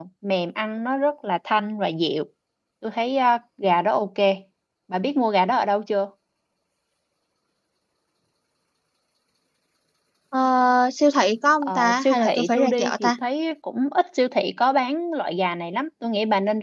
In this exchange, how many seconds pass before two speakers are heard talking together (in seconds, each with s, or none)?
11.6 s